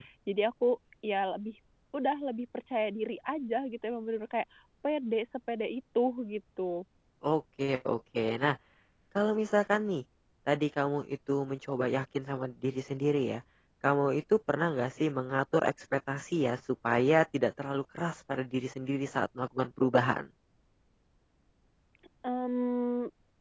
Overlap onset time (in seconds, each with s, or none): none